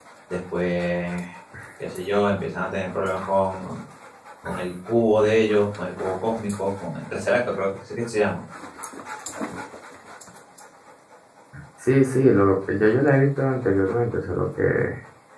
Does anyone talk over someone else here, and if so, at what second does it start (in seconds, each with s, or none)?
none